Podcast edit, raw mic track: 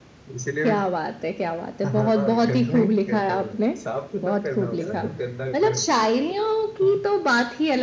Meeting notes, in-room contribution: present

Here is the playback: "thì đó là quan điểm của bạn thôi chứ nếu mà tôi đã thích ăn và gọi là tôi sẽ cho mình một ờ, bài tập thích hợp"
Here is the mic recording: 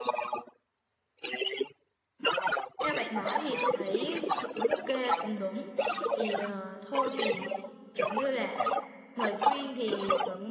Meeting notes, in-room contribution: present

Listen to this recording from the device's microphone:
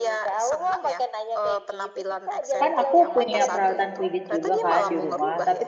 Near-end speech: present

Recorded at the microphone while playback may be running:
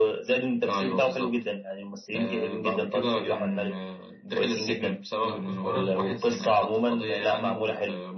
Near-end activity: present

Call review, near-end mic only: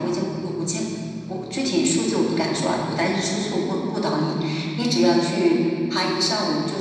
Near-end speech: none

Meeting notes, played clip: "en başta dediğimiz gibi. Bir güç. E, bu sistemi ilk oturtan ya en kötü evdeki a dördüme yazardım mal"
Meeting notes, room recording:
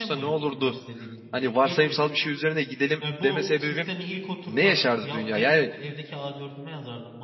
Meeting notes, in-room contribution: present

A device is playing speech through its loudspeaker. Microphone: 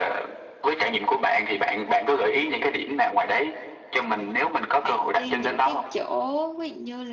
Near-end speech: present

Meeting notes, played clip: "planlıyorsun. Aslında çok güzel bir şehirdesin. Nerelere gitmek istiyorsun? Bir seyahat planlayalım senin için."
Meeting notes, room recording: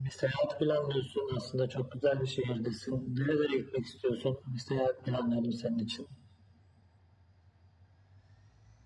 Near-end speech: none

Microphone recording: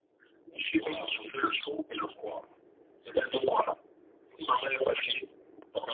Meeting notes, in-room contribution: present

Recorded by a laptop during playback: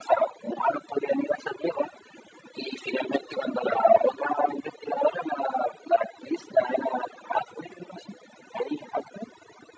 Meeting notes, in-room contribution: none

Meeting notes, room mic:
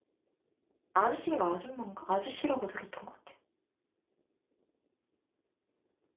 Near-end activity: present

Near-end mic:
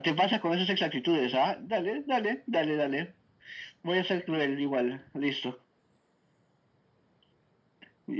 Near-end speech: none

